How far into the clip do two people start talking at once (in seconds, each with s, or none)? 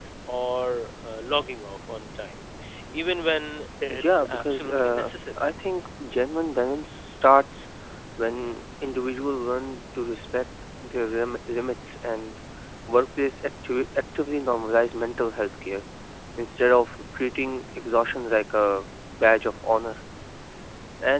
3.9 s